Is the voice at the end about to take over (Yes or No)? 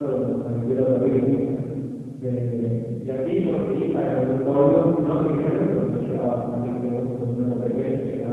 No